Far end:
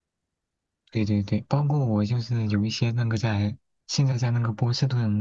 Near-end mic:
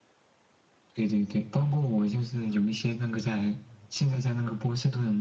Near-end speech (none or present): none